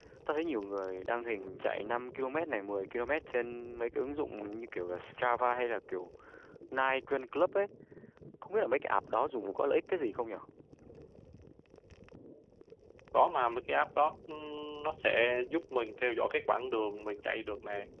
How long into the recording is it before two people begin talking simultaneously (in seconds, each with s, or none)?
none